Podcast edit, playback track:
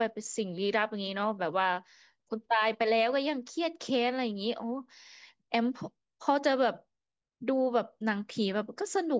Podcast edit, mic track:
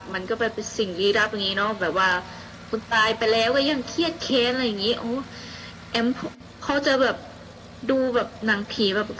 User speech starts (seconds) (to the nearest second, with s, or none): none